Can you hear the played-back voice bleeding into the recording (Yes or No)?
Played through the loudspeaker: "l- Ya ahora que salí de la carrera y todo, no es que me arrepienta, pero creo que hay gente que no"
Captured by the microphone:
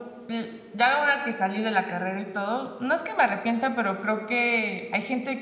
Yes